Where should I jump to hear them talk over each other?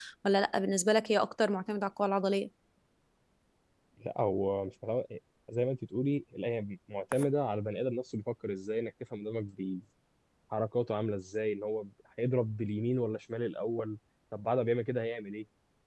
none

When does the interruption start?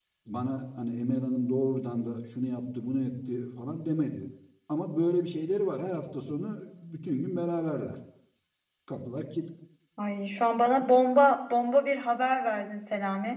none

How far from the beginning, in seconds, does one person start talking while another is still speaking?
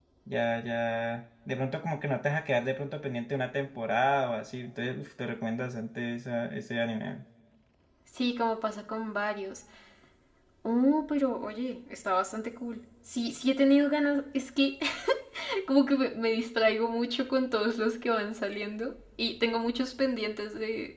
none

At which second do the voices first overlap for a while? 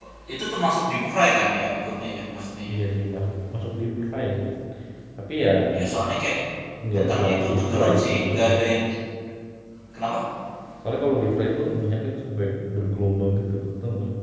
6.9 s

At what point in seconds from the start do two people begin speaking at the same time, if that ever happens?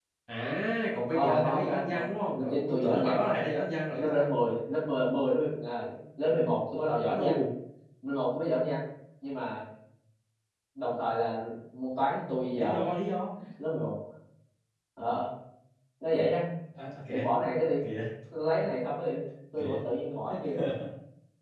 1.1 s

